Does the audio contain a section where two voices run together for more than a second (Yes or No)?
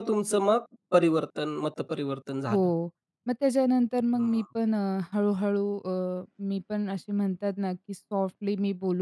No